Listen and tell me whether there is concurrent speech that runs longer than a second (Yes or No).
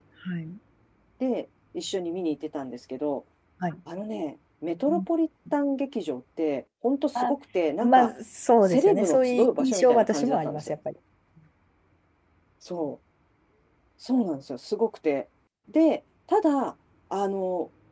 Yes